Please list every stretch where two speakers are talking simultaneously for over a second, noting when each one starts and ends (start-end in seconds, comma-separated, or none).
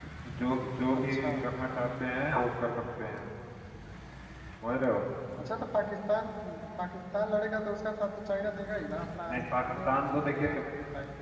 9.3-10.6